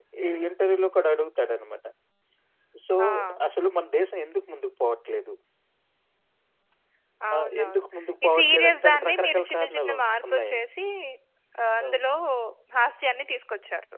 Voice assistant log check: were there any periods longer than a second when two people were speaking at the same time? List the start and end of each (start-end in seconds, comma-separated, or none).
8.2-10.7